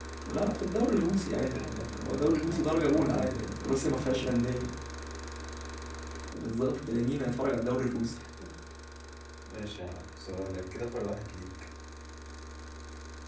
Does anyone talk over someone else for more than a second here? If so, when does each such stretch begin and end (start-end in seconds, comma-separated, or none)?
1.3-3.4